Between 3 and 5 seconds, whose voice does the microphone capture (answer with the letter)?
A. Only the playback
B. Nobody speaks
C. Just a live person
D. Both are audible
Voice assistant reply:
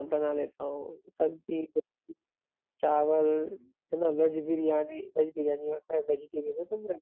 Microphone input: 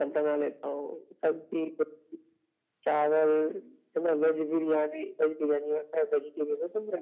A